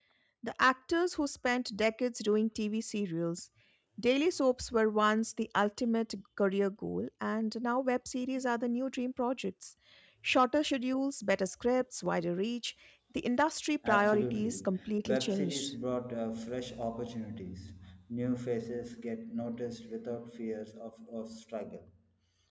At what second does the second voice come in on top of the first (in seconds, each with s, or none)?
13.8 s